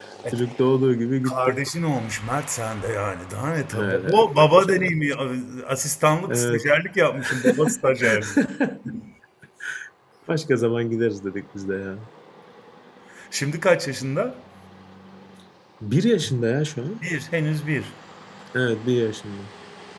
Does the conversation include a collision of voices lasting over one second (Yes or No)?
Yes